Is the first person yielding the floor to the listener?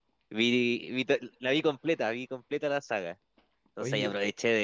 No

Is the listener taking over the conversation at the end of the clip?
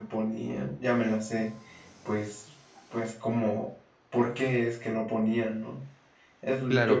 Yes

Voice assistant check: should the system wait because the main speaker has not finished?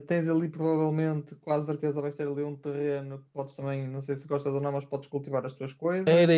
No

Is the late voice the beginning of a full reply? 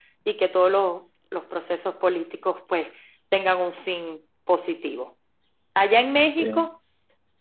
No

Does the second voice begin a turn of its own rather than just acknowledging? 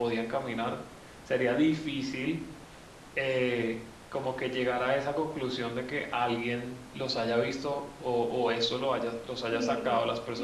Yes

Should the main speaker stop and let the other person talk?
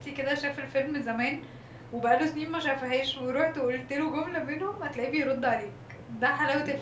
Yes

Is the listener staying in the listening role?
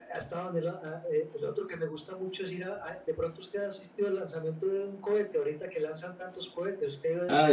No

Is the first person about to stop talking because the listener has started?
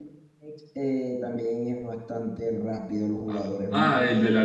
Yes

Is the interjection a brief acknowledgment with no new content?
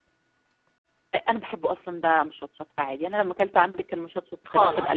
No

